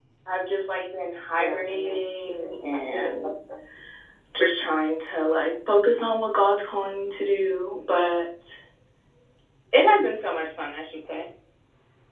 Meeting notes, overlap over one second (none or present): present